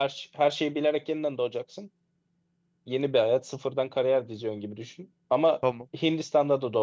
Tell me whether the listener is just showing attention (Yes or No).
Yes